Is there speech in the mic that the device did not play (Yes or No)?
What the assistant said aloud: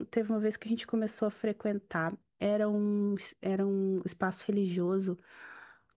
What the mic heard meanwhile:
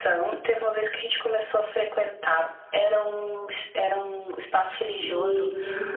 Yes